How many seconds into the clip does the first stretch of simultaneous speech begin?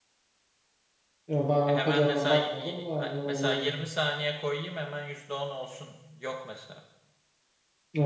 1.7 s

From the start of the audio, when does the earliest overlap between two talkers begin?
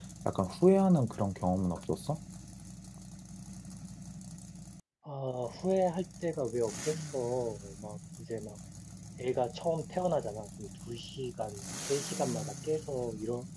none

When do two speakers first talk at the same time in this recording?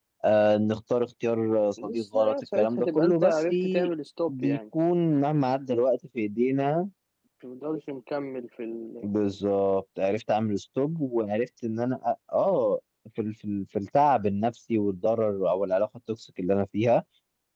1.8 s

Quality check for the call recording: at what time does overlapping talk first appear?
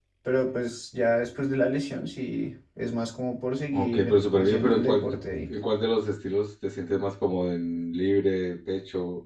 3.7 s

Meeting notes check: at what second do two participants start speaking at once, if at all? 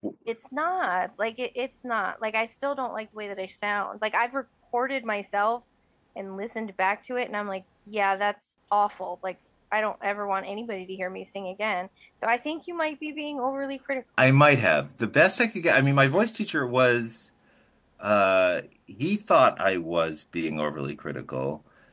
none

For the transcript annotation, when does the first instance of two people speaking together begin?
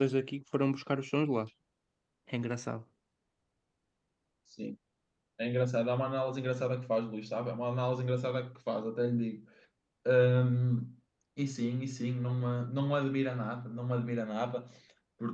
none

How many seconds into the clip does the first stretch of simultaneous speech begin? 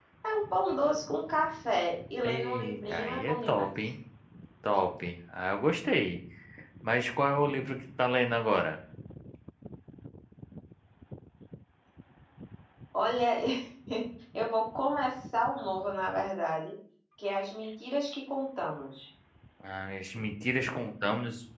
2.2 s

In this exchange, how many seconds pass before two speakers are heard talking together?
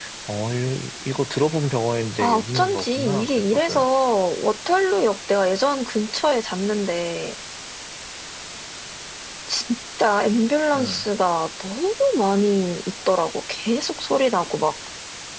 2.2 s

